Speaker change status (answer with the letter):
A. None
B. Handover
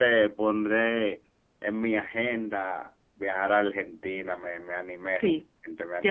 B